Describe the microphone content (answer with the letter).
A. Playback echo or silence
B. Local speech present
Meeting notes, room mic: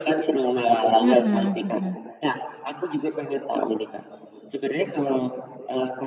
B